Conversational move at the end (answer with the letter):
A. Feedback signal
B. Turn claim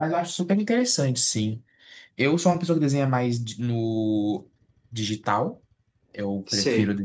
A